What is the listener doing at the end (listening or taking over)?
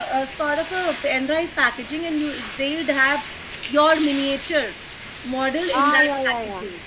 taking over